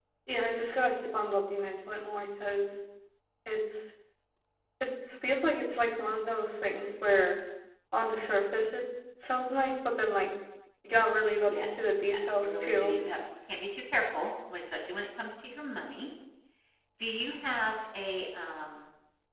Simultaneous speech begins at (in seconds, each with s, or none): 11.4 s